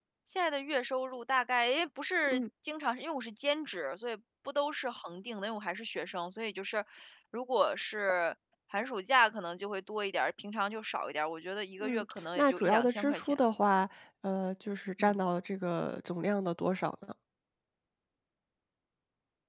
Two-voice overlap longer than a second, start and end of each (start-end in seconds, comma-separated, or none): 11.8-13.4